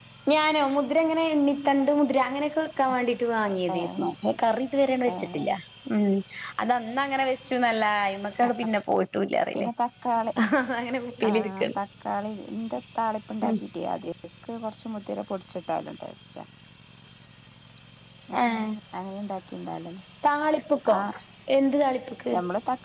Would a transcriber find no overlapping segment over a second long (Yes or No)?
Yes